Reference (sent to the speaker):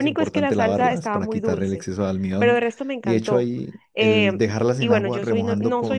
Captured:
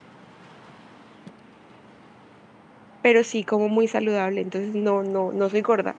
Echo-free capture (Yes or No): Yes